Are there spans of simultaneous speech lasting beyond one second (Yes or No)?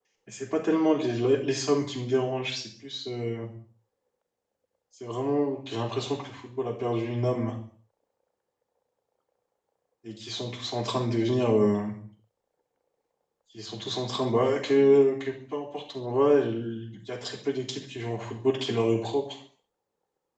No